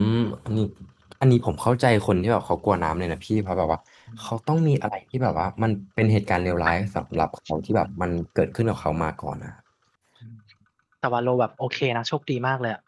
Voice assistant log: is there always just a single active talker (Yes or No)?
Yes